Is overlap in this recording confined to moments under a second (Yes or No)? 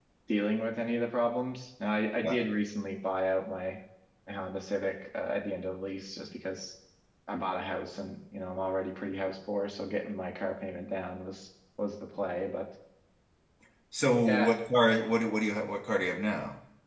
Yes